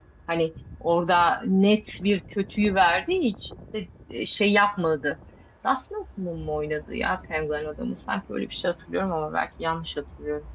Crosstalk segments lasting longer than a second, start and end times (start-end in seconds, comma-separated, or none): none